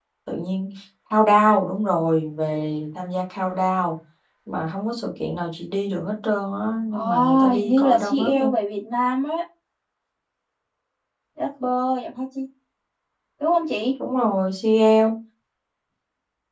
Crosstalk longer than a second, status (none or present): present